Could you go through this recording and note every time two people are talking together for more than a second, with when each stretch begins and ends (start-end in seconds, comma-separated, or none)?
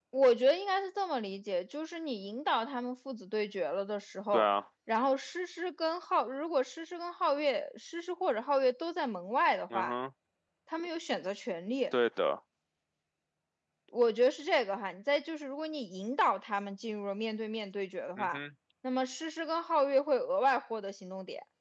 none